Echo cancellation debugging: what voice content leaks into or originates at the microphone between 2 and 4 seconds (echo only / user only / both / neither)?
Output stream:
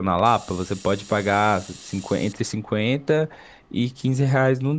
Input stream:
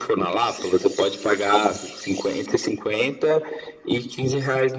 echo only